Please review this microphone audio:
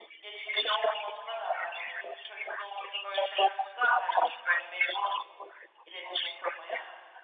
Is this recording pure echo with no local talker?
Yes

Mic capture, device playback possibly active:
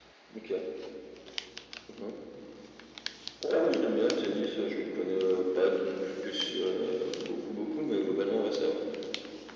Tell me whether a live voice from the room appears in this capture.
No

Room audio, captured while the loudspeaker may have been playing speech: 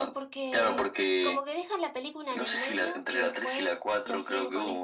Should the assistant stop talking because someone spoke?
Yes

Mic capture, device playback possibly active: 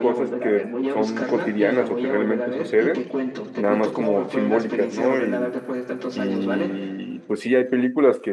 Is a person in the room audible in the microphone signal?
Yes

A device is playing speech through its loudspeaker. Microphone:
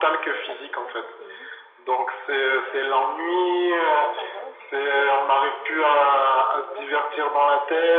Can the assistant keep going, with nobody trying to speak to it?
No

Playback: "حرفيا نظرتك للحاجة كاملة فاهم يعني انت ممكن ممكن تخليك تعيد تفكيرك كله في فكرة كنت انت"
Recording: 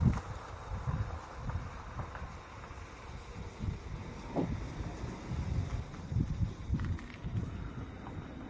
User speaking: No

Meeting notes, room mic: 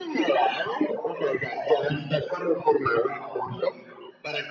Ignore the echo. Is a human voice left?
No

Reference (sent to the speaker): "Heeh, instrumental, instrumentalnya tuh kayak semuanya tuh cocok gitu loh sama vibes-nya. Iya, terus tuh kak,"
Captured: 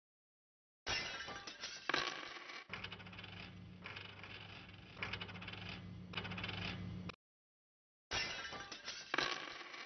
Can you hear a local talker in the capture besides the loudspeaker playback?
No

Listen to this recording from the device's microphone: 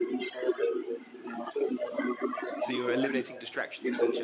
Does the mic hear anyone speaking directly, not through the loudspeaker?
Yes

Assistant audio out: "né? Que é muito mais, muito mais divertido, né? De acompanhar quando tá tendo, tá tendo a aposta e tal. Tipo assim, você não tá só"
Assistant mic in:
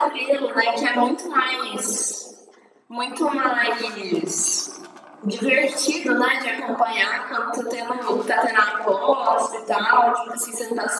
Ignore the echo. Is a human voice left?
No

